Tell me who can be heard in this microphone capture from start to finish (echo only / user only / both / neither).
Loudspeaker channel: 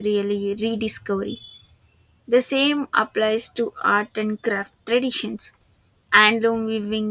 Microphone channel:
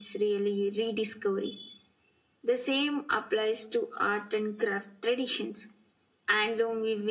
echo only